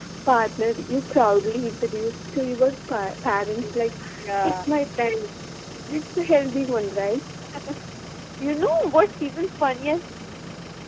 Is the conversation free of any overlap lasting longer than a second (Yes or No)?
Yes